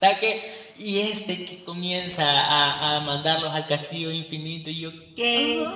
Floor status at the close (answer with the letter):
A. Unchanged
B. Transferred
B